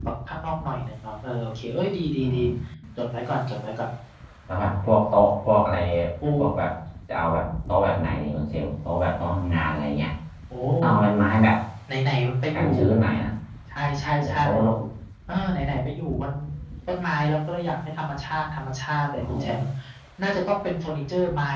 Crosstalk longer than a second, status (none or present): none